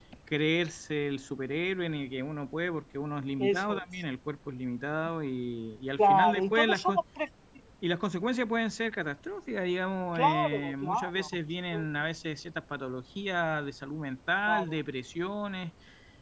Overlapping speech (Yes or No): Yes